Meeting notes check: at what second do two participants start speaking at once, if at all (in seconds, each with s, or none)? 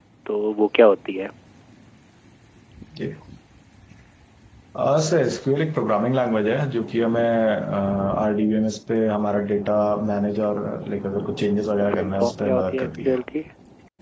11.8 s